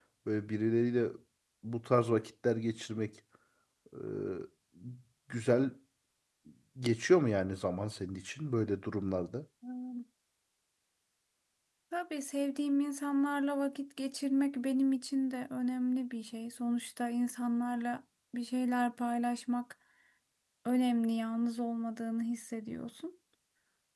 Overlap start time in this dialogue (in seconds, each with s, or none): none